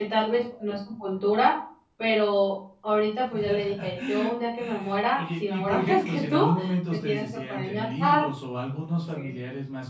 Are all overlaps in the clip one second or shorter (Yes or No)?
No